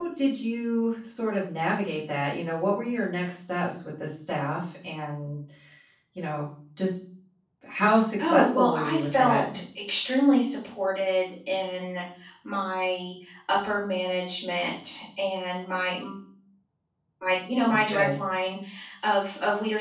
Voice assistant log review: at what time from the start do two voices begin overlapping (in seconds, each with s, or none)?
8.2 s